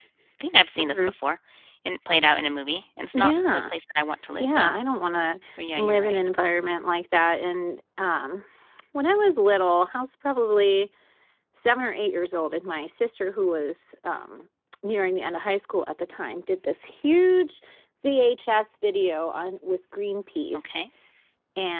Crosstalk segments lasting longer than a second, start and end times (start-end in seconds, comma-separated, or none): none